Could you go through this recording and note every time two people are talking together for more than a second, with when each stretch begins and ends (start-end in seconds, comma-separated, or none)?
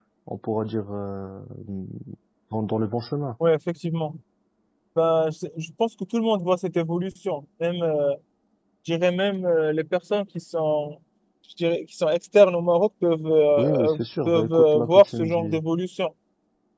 13.6-15.6